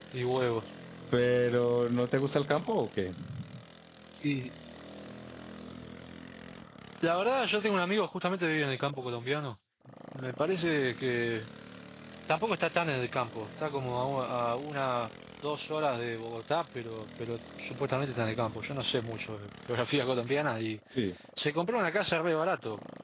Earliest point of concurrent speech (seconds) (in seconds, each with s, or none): none